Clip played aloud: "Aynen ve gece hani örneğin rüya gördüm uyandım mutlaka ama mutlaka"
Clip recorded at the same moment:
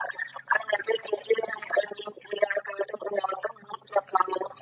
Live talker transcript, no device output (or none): none